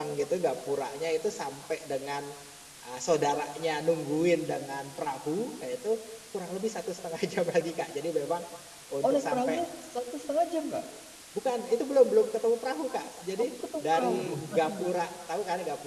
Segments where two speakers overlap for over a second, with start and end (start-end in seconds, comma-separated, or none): 13.4-14.9